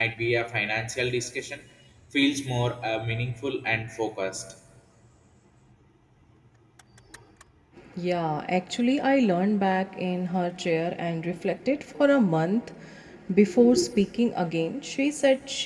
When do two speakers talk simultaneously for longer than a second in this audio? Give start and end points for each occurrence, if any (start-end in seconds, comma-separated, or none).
none